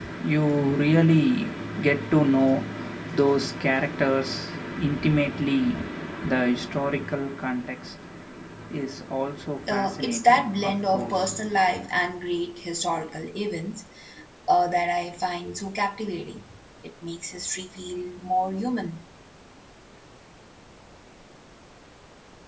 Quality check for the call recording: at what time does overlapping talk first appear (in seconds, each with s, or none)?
9.7 s